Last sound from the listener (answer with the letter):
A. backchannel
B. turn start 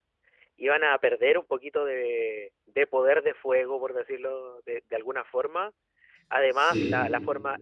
A